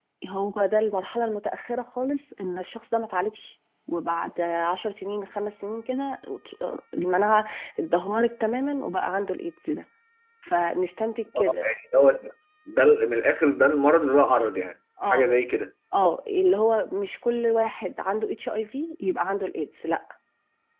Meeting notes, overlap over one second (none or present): none